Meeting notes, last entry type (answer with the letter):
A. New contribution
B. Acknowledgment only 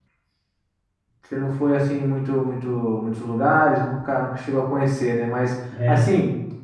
B